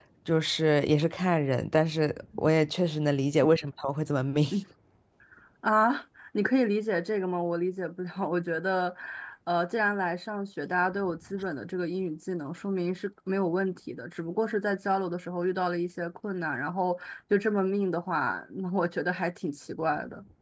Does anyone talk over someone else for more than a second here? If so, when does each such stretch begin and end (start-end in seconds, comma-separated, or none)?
none